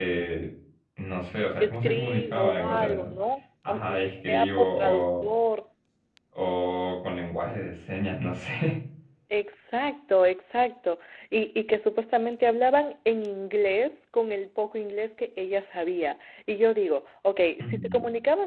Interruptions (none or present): present